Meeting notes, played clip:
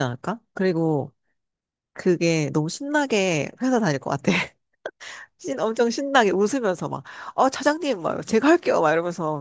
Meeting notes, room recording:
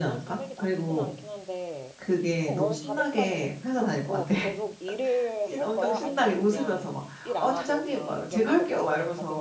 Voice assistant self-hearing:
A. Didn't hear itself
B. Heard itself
B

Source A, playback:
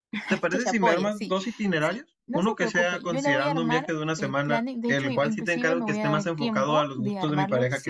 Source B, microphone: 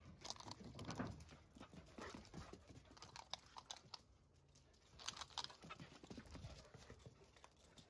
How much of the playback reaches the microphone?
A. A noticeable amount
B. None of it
B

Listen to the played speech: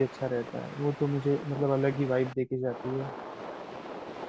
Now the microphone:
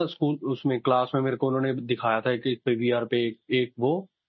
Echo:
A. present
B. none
B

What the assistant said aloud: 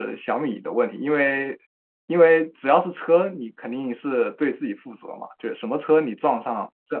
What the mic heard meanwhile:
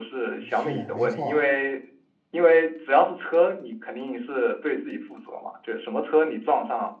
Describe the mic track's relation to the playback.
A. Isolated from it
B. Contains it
B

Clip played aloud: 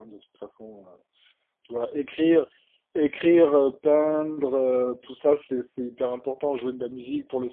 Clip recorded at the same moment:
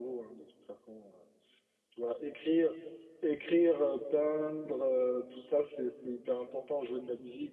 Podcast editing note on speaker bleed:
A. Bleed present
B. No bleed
A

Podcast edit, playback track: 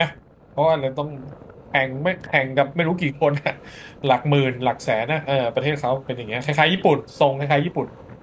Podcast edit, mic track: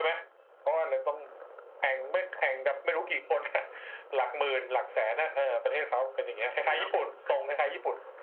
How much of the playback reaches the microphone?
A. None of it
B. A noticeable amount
B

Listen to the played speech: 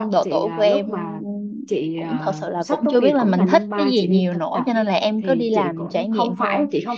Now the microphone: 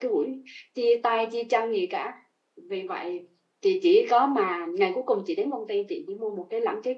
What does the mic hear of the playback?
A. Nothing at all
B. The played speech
A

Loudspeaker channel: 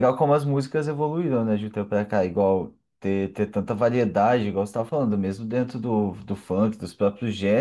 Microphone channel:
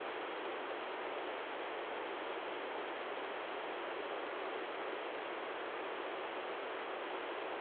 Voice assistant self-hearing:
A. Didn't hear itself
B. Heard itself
A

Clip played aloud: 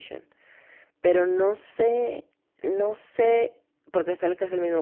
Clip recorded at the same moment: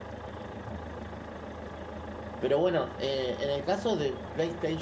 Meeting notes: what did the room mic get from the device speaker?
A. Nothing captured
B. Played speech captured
A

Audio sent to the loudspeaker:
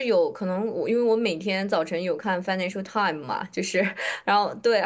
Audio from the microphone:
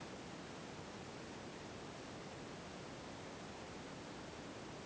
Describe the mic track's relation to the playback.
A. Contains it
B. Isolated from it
B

